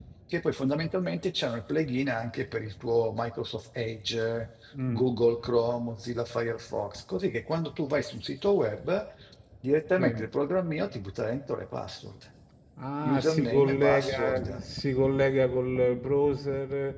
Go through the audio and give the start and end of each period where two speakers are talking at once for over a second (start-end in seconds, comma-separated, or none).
13.0-14.6